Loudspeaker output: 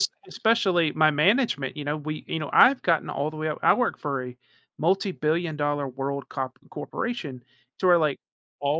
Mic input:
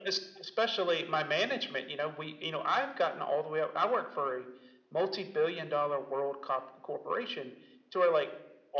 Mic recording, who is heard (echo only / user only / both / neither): echo only